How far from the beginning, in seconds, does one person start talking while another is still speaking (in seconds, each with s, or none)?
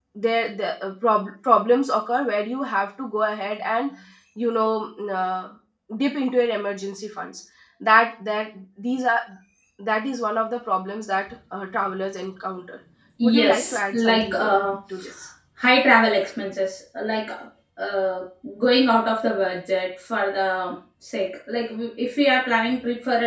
13.2 s